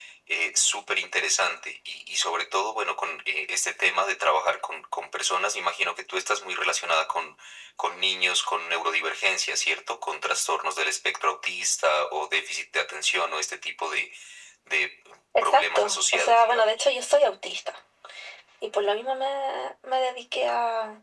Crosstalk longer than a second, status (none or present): present